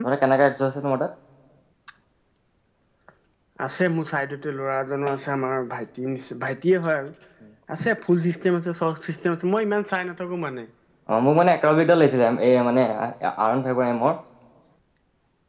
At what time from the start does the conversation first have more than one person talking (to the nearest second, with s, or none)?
none